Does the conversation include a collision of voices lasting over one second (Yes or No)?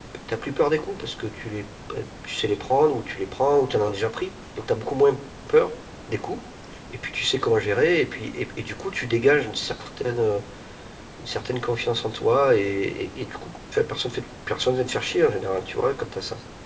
No